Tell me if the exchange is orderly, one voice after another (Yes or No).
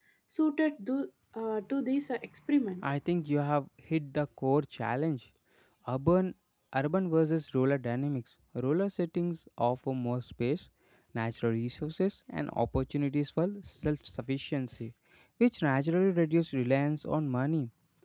Yes